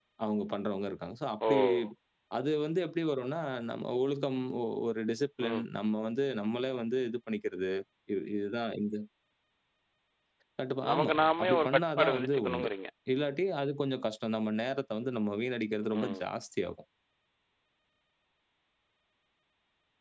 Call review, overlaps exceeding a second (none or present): present